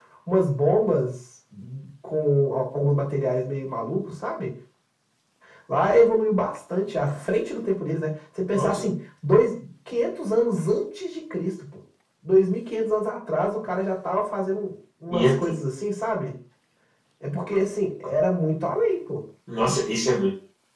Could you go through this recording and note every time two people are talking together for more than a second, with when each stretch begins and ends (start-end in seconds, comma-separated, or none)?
none